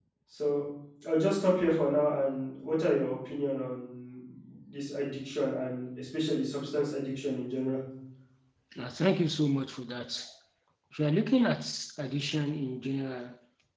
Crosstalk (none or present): none